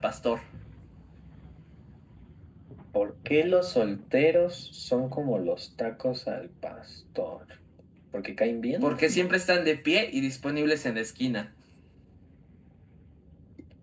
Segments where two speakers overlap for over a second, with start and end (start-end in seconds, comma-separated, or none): none